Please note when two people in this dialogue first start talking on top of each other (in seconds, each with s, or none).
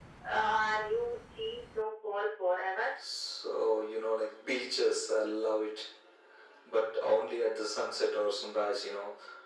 none